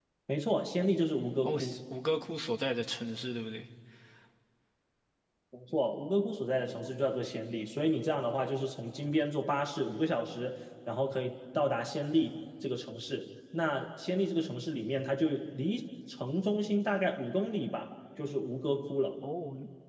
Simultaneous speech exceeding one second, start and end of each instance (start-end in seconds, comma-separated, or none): none